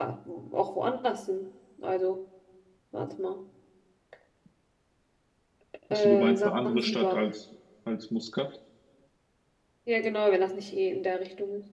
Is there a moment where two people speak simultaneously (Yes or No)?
Yes